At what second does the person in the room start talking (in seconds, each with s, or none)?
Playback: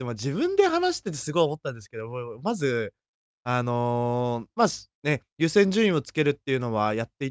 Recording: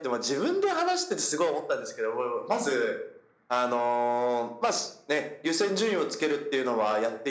none